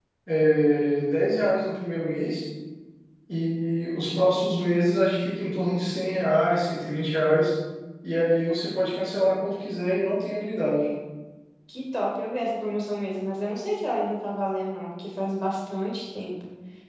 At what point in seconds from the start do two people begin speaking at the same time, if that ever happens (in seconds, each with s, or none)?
none